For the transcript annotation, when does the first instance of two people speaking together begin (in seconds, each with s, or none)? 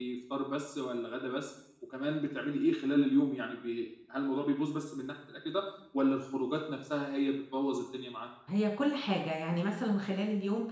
none